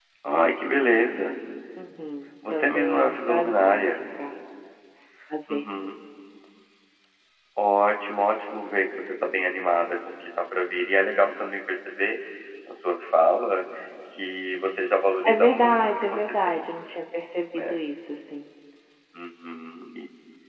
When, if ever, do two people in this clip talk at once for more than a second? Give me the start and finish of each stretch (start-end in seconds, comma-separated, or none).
2.5-4.0, 15.3-16.7